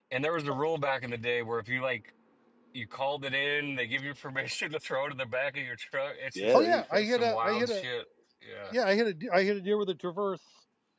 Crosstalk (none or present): present